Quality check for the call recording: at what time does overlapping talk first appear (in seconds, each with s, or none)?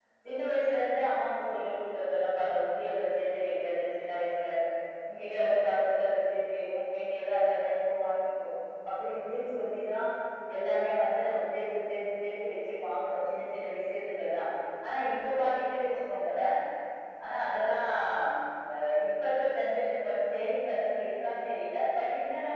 none